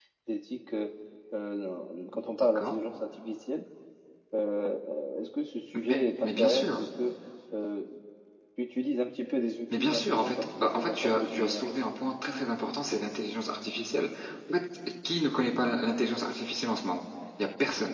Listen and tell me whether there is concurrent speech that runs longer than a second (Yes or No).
Yes